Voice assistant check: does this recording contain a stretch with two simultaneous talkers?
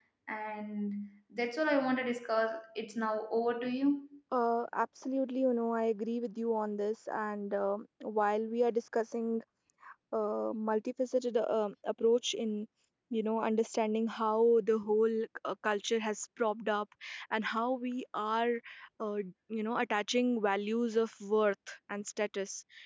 No

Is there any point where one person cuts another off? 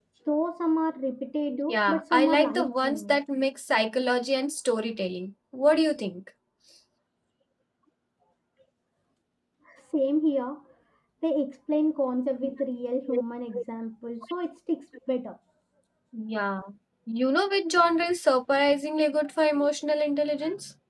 Yes, from 1.5 s

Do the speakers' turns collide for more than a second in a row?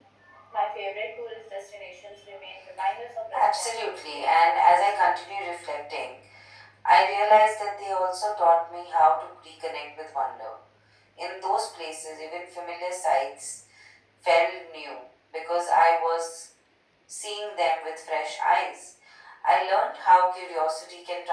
Yes, from 3.3 s

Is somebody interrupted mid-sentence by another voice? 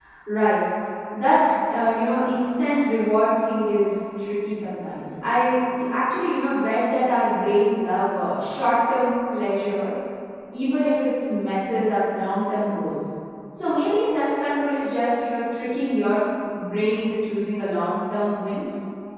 No

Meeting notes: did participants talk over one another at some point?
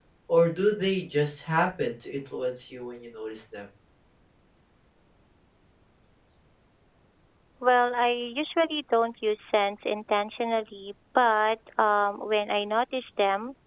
No

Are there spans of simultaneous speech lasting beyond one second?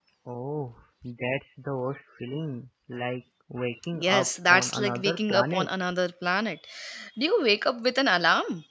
Yes, from 3.9 s

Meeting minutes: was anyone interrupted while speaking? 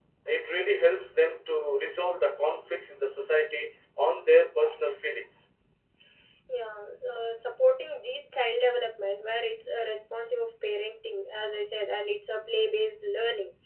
No

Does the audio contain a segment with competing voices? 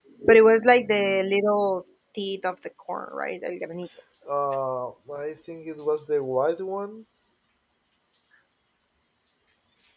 No

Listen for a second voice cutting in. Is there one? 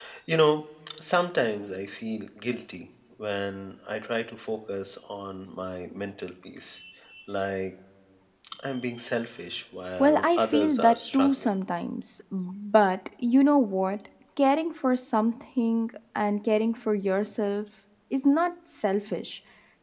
Yes, from 10.0 s

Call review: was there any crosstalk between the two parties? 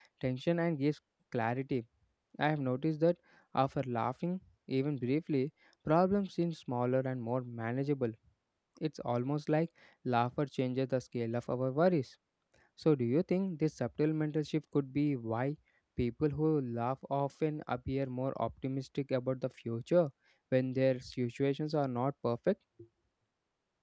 No

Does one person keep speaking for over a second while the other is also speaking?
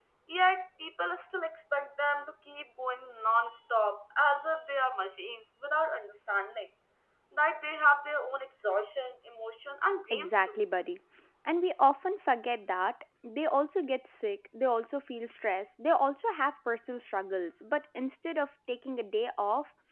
No

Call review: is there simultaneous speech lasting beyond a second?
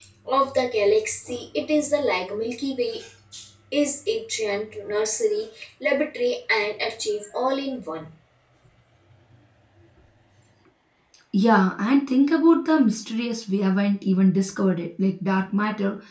No

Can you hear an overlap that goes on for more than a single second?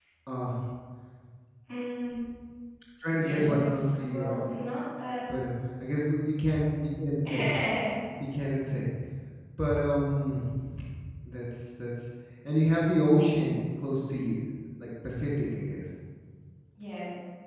Yes, from 3.2 s

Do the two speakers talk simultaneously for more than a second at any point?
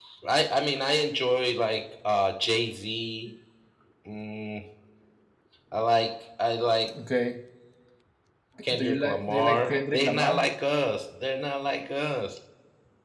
Yes, from 8.8 s

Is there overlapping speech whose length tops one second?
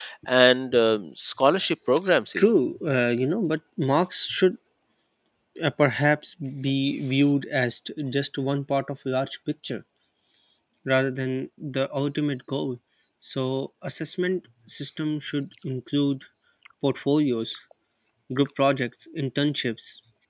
No

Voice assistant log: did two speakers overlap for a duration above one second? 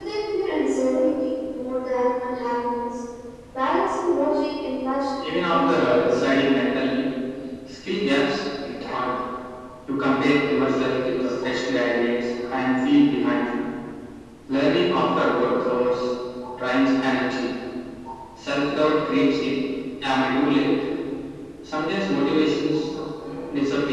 Yes, from 5.2 s

